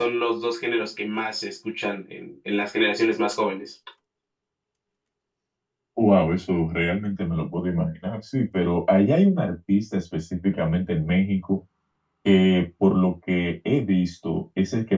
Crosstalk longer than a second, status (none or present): none